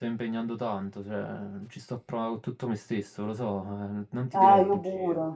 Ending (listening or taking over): taking over